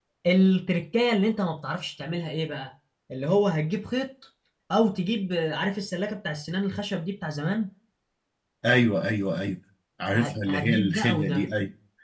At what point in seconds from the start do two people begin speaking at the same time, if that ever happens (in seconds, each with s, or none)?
10.1 s